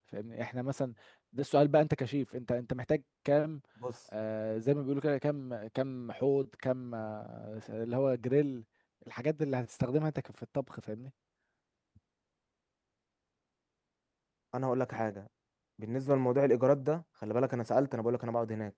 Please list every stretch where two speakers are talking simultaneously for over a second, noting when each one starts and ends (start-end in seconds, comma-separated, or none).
none